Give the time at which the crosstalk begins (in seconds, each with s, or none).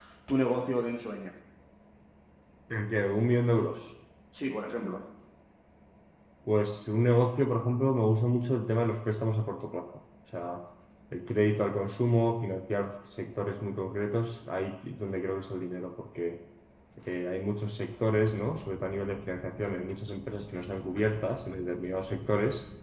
none